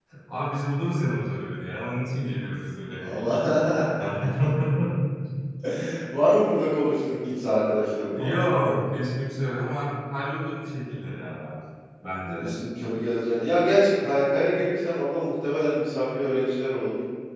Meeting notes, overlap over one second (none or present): none